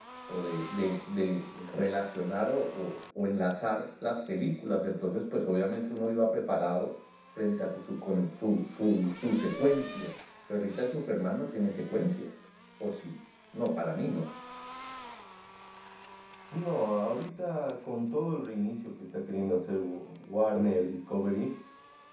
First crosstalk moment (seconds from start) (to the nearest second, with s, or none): none